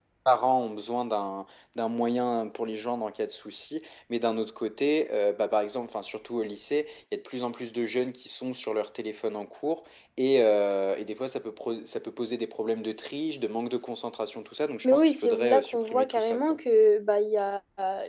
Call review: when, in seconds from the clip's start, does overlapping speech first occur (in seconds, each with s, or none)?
14.8 s